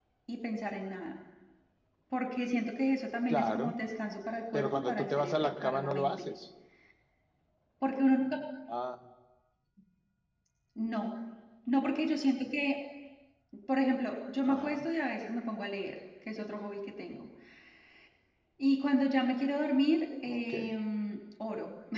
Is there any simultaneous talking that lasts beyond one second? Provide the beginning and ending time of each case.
4.5-6.3

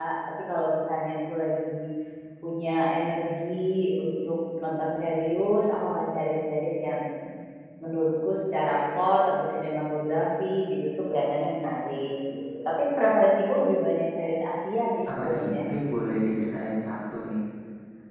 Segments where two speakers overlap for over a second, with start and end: none

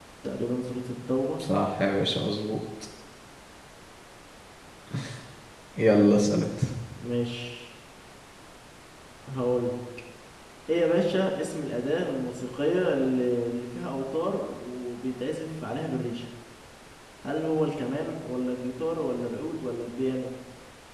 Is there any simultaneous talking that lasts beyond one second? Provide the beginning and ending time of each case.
none

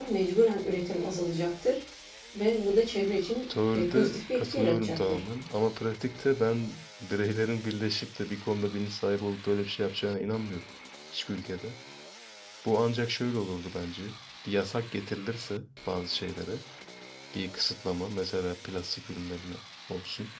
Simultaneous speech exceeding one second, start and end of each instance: 3.7-5.2

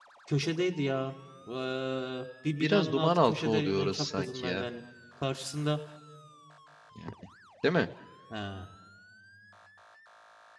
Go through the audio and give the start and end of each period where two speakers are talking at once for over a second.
2.6-4.7

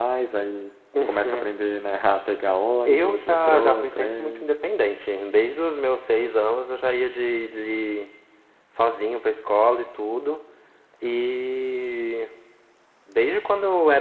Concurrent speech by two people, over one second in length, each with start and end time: 2.9-4.4

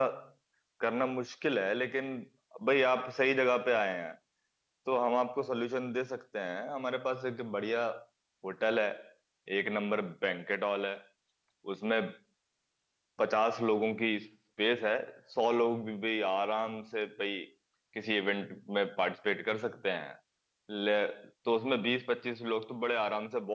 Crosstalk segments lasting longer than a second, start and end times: none

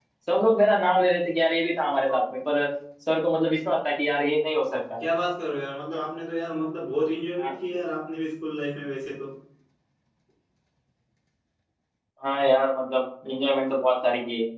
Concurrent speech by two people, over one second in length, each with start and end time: none

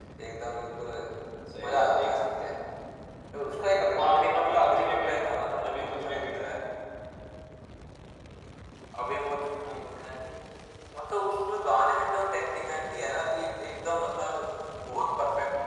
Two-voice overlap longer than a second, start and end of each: 4.0-6.5

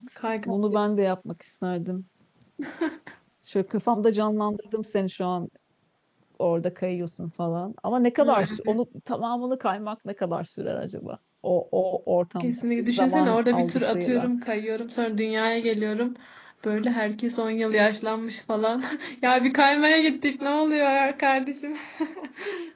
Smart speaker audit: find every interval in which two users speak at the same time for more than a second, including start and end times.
12.4-14.3

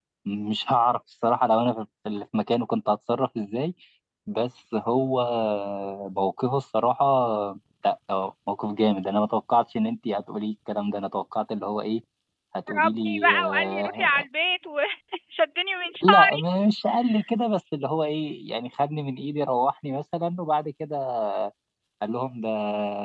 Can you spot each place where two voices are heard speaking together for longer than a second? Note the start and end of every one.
12.7-14.2

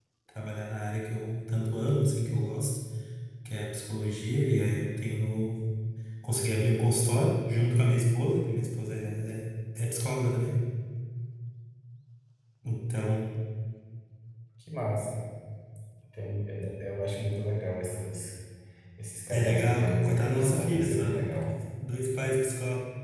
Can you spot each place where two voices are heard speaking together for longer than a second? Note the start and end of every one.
19.3-21.5

